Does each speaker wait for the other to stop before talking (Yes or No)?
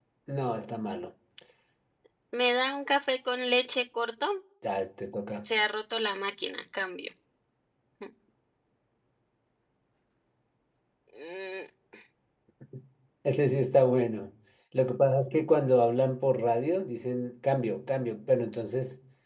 Yes